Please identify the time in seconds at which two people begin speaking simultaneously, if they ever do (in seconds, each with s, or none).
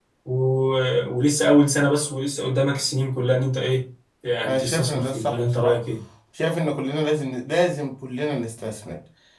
4.4 s